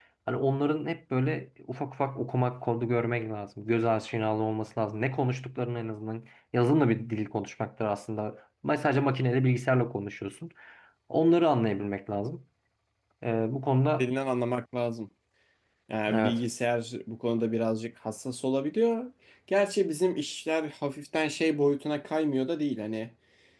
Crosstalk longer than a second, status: none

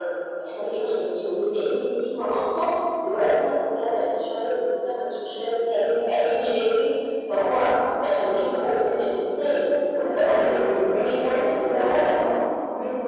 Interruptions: present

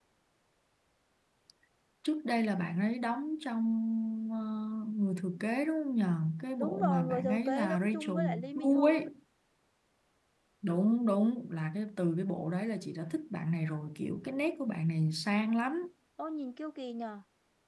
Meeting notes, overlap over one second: present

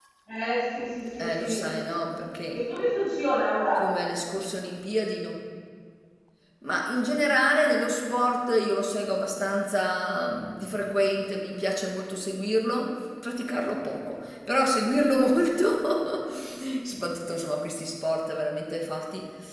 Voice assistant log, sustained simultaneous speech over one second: none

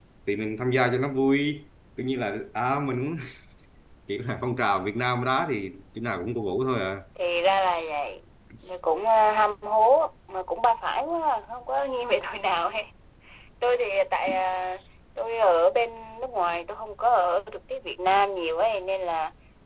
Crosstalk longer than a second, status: none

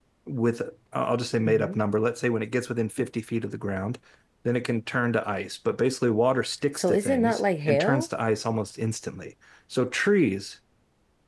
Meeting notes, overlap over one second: present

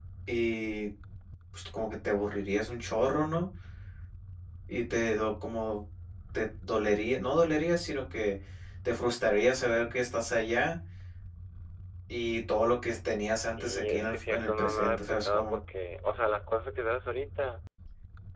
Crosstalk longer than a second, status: present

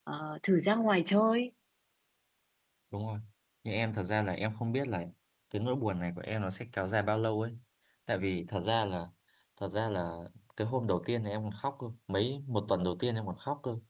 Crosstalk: none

